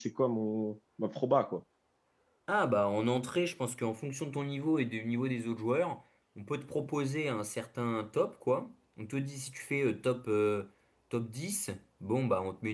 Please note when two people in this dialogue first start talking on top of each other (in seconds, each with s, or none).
none